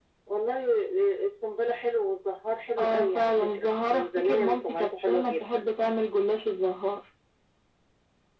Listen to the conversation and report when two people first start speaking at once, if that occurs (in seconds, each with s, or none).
2.8 s